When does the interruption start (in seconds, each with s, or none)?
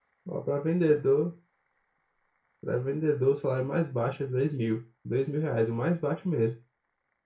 none